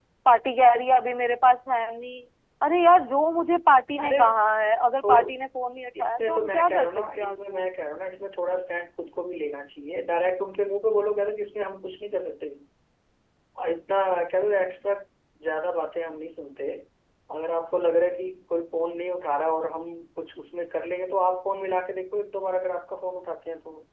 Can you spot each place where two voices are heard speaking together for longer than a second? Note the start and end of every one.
6.0-7.7

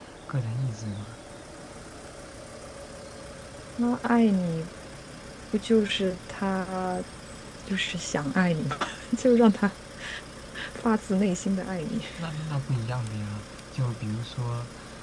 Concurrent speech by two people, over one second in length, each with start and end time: none

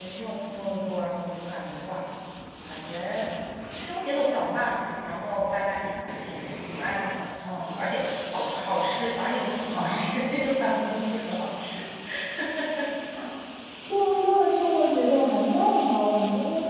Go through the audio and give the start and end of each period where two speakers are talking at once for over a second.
none

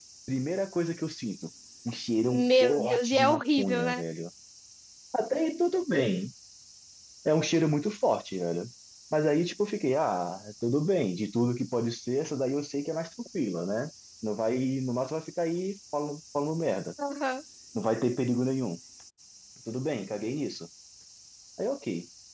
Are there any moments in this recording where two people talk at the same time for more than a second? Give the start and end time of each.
2.2-4.0

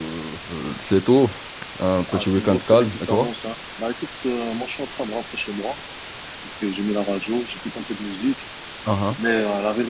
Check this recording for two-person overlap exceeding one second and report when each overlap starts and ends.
2.1-3.3

